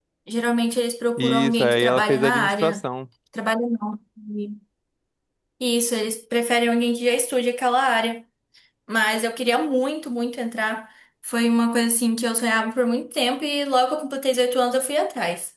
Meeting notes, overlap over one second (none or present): present